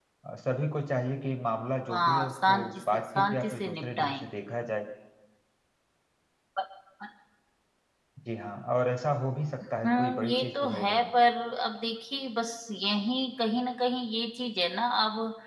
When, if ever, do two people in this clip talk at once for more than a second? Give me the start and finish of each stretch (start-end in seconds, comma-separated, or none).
1.9-4.2, 9.8-11.1